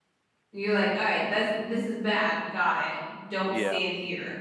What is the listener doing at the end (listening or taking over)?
listening